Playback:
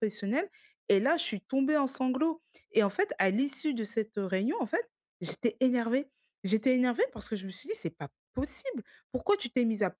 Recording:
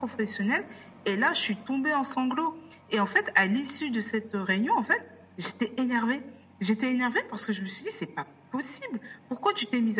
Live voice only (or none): none